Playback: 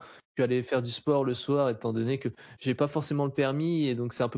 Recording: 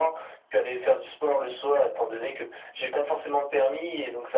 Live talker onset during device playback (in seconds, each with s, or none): none